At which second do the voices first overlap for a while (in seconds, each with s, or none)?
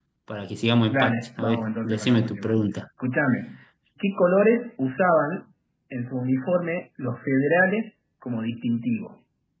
0.9 s